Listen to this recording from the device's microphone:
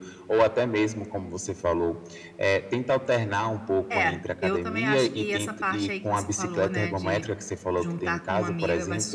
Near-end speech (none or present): present